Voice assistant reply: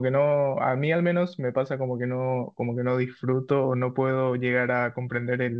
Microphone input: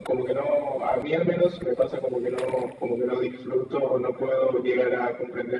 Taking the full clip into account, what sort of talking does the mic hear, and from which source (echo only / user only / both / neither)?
echo only